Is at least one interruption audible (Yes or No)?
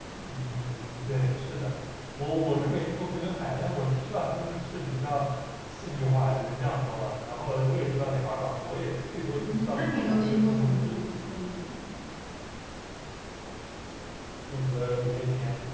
Yes